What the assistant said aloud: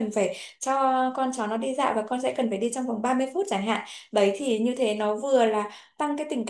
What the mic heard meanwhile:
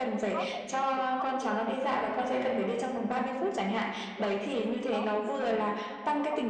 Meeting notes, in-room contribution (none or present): present